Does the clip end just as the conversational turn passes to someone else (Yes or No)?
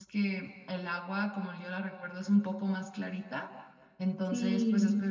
No